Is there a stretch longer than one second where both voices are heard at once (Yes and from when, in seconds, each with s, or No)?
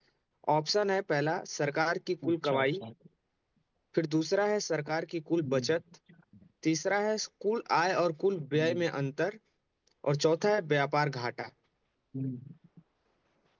No